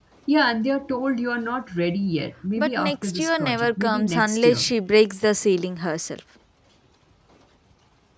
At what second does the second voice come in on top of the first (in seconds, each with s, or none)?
2.6 s